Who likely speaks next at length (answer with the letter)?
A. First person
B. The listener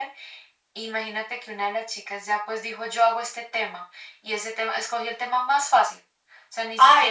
B